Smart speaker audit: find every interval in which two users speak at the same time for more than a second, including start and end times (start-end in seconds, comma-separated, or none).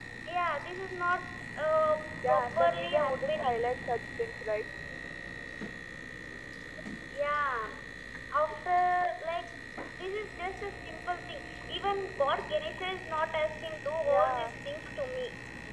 2.3-3.7